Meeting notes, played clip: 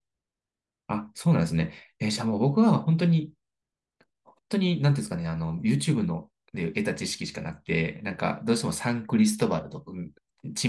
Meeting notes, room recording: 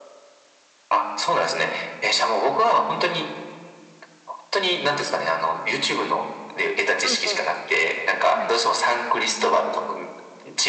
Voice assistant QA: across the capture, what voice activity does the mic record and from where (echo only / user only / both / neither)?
both